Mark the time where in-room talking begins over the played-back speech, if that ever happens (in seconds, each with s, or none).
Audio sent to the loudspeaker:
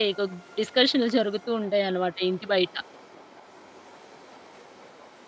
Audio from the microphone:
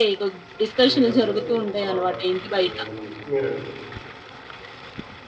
0.9 s